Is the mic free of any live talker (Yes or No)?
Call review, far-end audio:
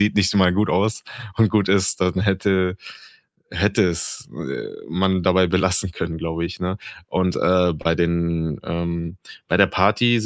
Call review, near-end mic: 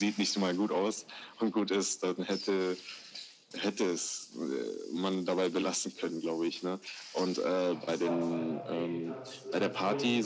No